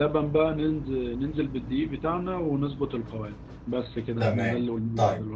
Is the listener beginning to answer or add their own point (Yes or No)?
Yes